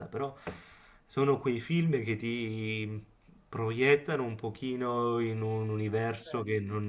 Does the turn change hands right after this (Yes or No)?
No